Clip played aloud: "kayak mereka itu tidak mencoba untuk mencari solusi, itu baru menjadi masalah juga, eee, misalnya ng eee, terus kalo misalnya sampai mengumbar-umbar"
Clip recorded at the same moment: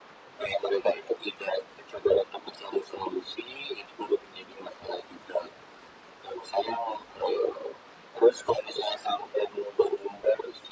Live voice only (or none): none